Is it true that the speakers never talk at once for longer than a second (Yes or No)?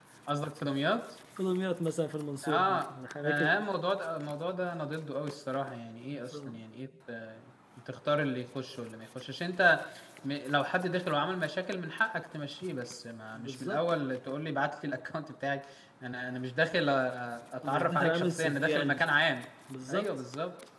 No